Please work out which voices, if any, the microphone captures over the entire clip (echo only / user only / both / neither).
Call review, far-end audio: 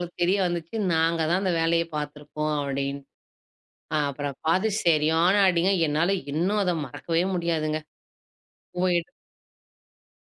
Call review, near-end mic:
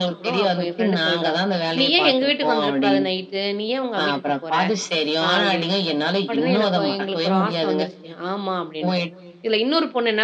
both